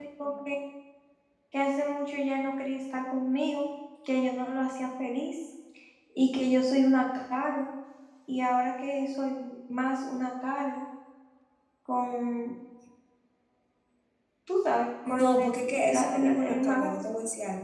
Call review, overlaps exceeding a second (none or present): present